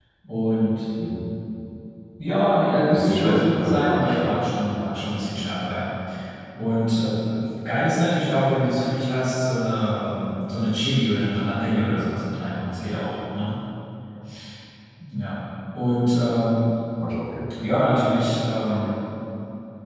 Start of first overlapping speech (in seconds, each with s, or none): 2.9 s